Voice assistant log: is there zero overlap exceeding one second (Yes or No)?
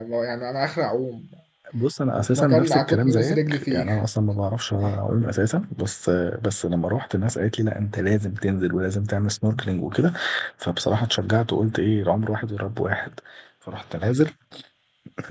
No